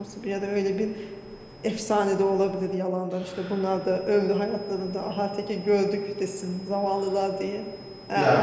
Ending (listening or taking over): listening